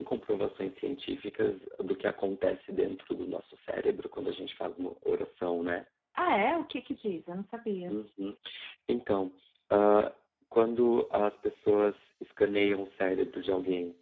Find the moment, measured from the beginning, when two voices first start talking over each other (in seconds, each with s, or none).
none